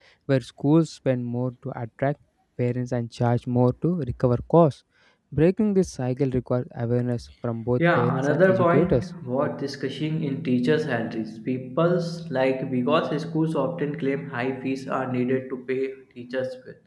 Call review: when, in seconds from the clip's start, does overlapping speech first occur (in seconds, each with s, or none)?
7.8 s